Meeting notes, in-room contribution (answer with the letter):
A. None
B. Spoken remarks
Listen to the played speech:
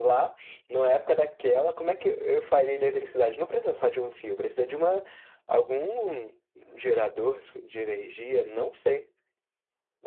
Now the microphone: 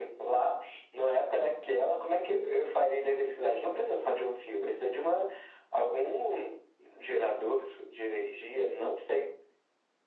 A